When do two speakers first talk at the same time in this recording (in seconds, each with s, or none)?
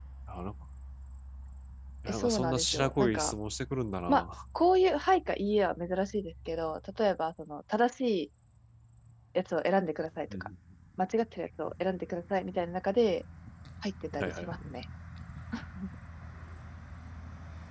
2.1 s